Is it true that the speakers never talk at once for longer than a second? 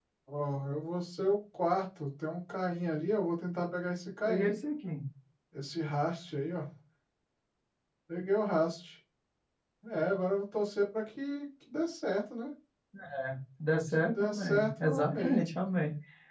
No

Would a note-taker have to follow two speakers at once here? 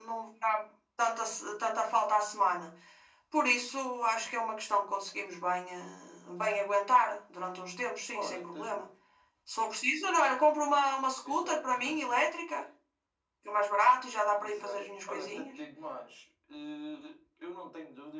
Yes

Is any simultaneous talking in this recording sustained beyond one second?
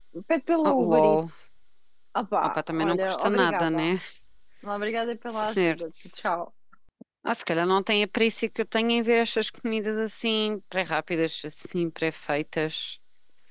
Yes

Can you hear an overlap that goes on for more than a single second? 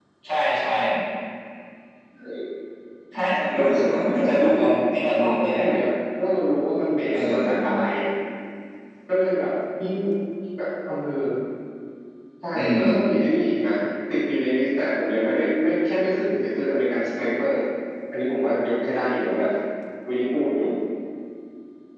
Yes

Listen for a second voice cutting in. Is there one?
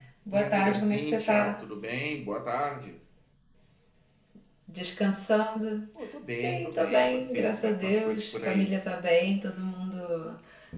Yes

